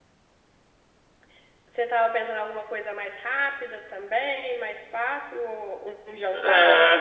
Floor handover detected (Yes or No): Yes